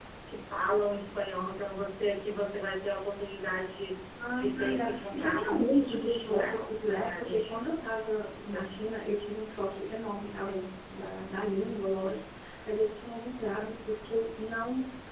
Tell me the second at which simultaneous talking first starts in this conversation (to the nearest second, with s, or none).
4 s